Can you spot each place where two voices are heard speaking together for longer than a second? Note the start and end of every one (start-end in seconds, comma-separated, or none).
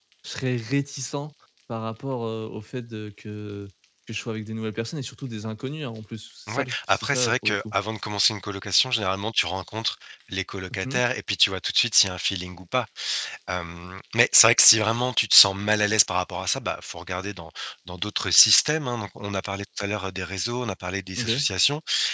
6.5-7.7